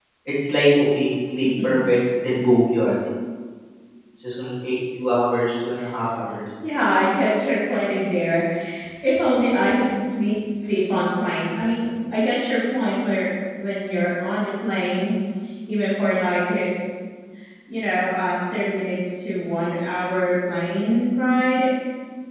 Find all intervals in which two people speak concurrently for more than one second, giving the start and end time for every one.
none

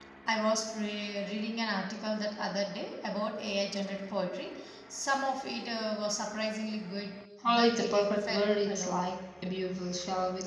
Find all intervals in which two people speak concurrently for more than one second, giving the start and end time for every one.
7.4-8.9

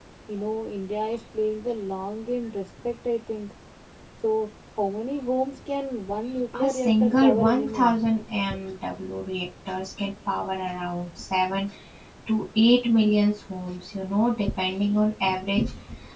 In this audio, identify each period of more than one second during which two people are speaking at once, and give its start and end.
6.6-8.0

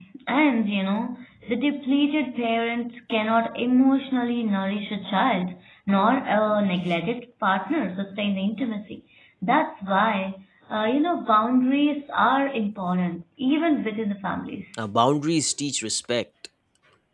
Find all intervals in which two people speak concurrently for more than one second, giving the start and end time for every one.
none

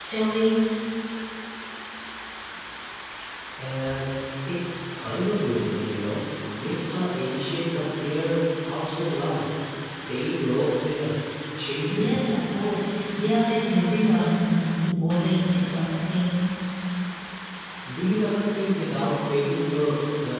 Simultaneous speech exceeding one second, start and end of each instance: none

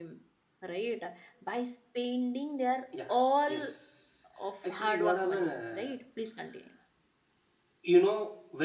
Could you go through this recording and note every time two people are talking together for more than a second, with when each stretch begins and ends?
4.6-5.9

